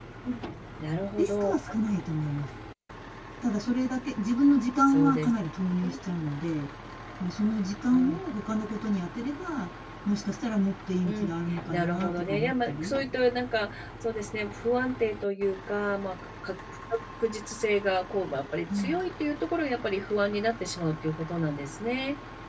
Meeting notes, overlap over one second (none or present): present